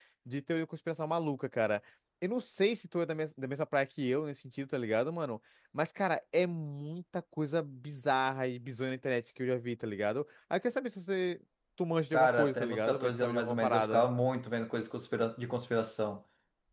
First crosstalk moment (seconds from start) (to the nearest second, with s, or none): 12 s